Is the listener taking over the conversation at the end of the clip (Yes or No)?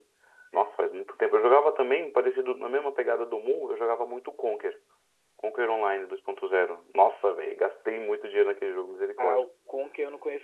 Yes